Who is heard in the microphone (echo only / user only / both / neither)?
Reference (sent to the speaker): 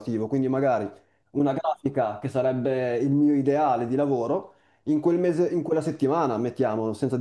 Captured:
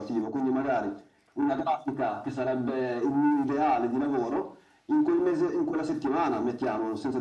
echo only